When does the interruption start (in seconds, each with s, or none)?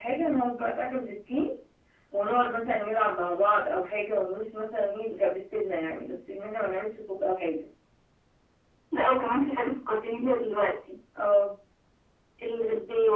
none